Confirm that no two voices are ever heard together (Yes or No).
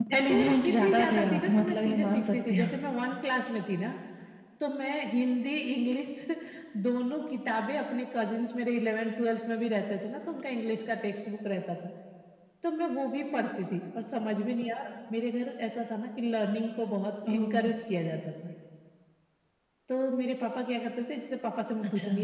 No